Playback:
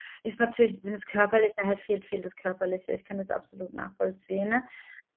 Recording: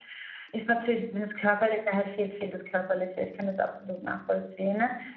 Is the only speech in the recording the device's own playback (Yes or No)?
Yes